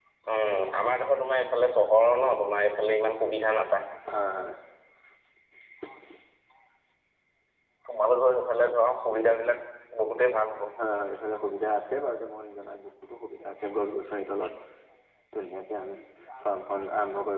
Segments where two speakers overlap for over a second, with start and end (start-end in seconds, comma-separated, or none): none